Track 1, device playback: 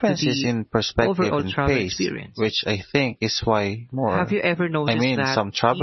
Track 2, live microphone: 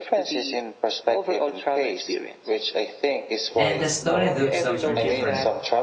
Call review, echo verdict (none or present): present